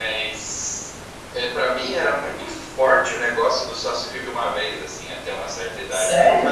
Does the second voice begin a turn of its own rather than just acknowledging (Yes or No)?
No